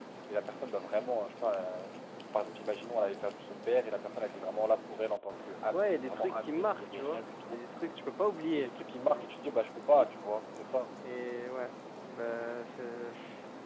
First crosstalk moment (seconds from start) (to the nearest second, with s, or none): 6 s